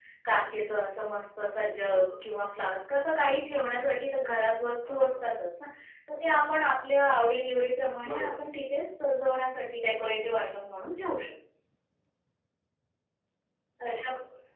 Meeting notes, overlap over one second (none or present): none